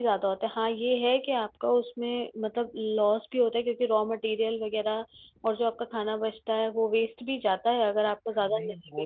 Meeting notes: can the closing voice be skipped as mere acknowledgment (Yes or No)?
No